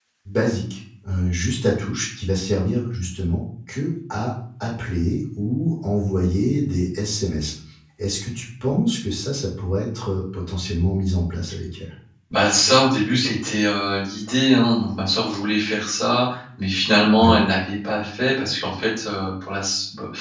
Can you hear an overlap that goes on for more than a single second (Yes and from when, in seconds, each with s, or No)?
No